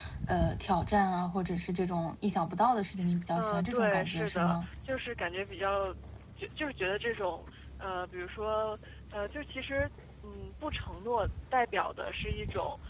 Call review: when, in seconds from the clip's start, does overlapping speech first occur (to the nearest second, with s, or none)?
3 s